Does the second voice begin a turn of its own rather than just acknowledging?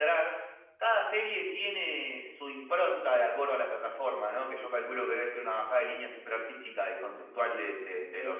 Yes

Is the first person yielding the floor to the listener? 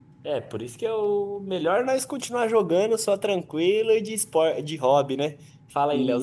Yes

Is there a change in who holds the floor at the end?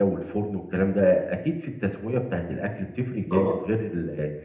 No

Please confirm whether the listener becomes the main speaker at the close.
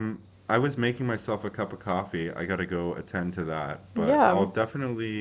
No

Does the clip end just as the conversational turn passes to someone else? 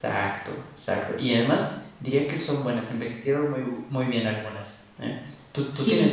Yes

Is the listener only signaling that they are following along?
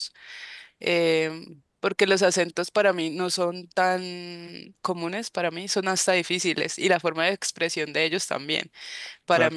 Yes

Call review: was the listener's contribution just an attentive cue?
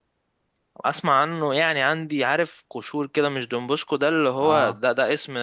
Yes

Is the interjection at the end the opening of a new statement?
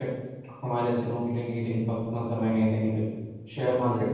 No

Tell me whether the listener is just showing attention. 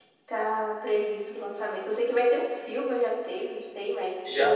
No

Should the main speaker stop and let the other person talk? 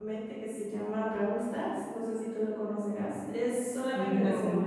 No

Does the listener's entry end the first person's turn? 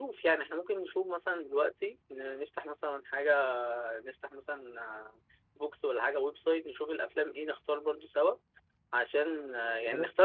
No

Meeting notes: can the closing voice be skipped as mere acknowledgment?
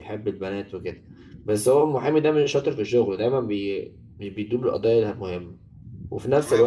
Yes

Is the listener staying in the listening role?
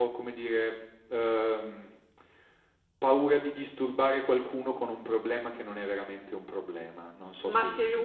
No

